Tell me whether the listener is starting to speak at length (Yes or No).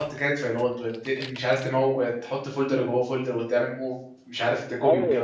Yes